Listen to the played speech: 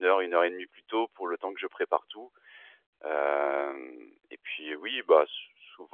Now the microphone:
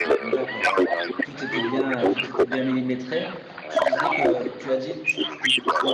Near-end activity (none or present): present